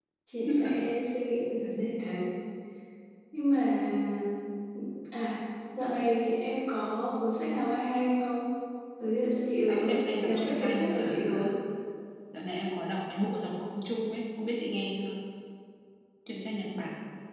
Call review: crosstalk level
present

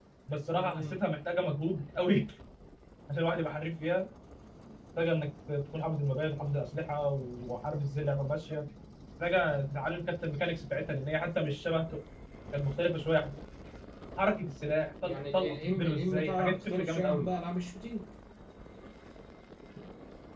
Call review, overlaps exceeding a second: present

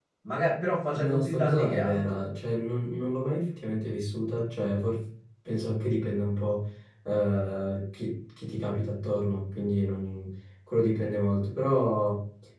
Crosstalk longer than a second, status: present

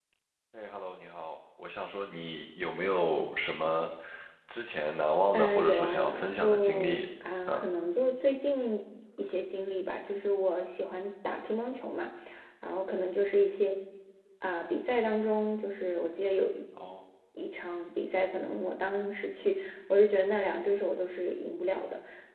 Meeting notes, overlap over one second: present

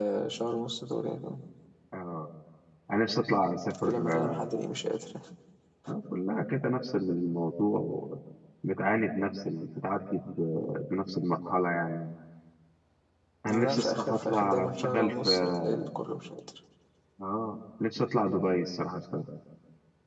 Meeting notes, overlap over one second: present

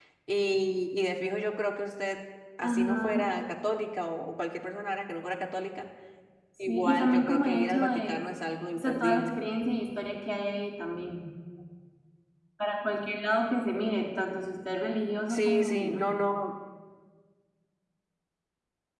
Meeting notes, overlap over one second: present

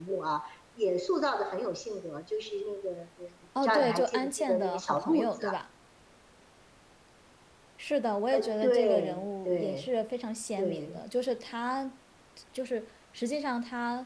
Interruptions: present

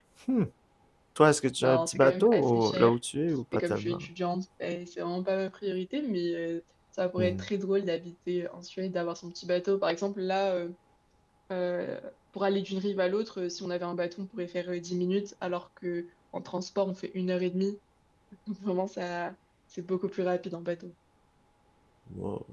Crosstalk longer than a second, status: present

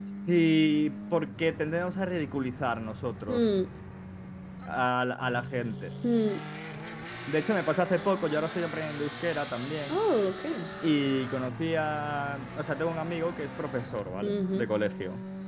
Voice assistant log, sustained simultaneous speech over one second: none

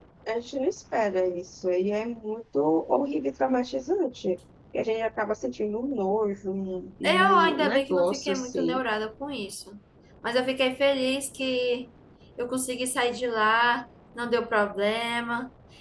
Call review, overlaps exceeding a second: present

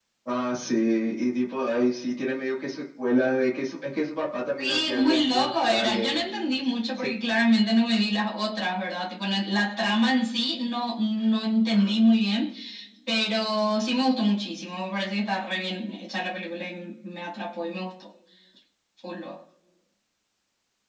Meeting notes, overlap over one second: present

